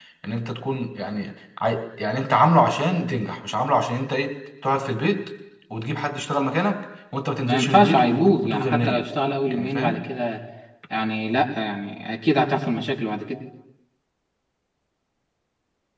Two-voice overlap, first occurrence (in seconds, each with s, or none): 7.5 s